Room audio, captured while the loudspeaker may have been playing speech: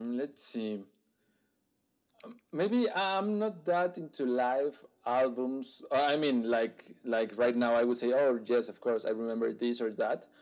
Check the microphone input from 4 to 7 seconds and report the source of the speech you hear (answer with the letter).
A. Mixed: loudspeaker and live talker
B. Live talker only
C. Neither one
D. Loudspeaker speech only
D